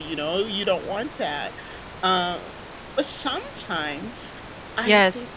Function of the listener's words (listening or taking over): listening